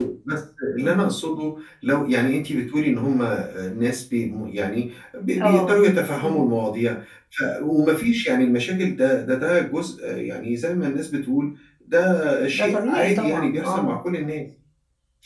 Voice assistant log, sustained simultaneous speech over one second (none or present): present